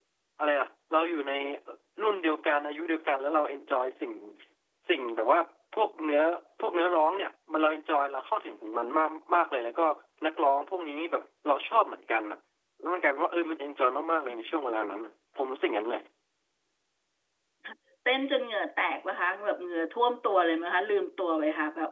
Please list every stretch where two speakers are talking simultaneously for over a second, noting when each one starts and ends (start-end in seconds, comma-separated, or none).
none